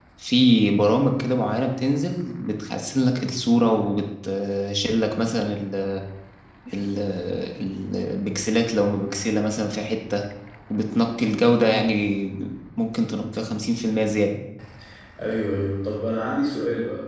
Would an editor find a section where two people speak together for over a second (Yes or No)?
No